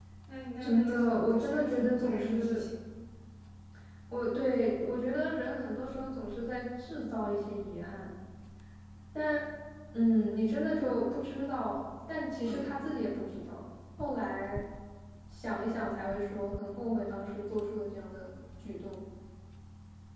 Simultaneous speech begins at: 0.6 s

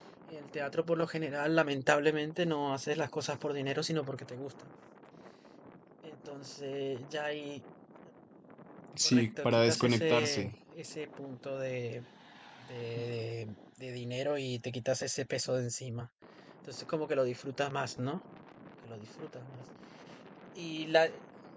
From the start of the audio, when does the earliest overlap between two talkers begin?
9.0 s

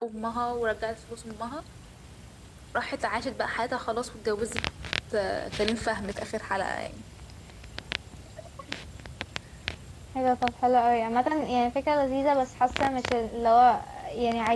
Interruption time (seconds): none

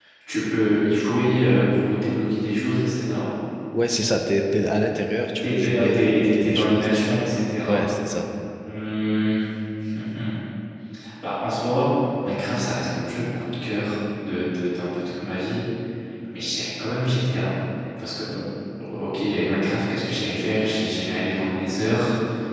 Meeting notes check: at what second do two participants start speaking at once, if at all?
5.4 s

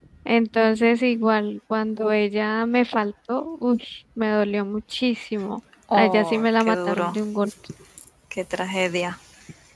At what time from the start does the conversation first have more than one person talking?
5.9 s

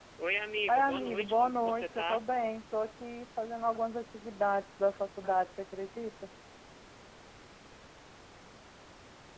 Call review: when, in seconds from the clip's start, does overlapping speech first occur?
0.7 s

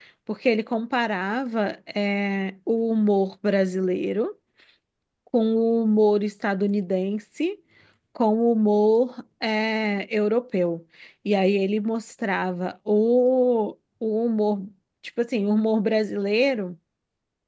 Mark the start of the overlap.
none

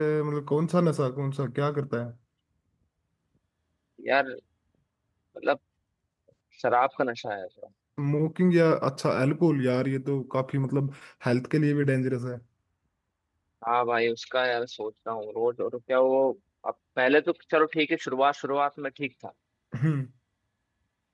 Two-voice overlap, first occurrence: none

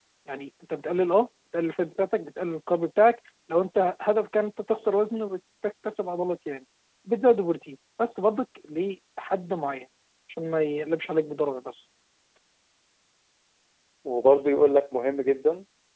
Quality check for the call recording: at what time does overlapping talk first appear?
none

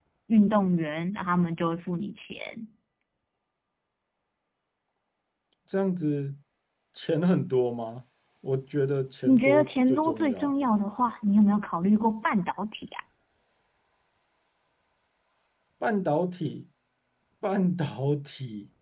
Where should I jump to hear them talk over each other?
9.3 s

